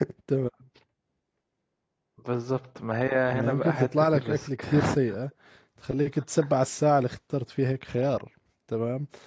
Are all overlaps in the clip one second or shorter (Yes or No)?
No